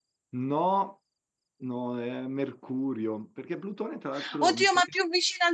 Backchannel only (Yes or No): No